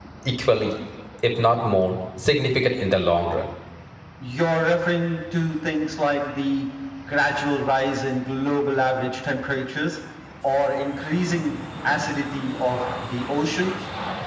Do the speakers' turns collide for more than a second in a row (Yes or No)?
No